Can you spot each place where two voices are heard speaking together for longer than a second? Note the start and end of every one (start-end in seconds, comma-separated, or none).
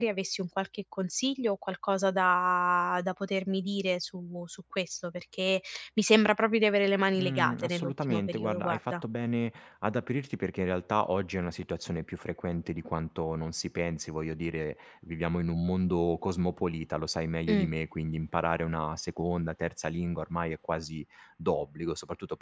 7.2-8.8